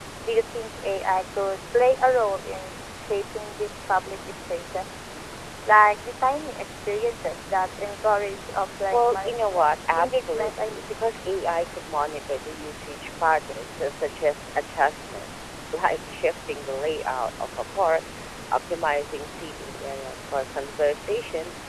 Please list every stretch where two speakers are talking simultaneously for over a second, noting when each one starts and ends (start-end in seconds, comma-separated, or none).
8.9-11.0